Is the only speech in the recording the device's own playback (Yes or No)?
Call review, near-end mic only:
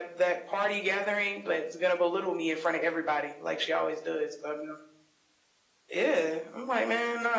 Yes